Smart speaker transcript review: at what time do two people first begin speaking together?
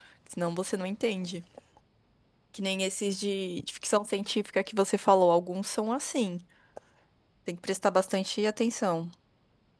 none

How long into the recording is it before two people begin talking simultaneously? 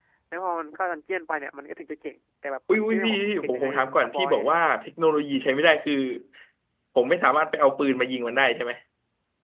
2.7 s

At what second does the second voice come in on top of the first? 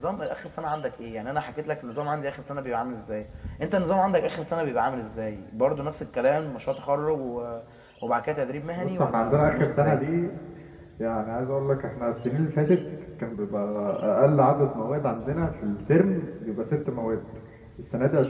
8.8 s

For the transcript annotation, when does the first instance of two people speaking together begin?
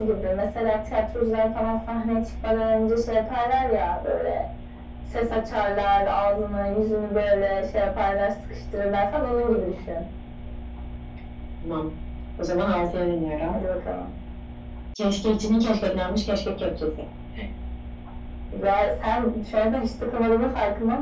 none

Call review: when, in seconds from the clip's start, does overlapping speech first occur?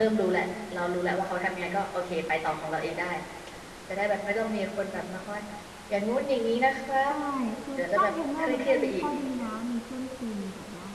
7.8 s

